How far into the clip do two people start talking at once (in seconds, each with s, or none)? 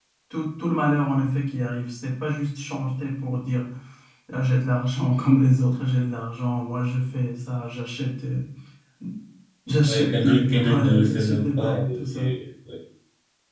9.8 s